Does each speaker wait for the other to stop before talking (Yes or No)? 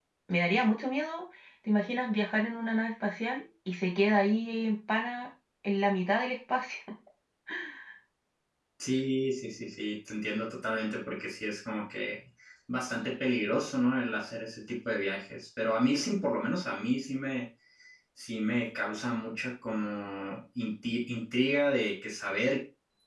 Yes